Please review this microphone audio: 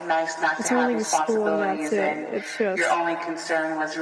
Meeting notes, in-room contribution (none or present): present